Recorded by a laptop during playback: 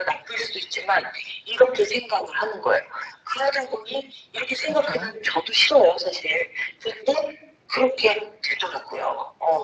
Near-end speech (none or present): present